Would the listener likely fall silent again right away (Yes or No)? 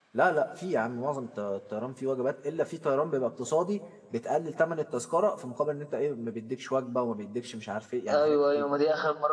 No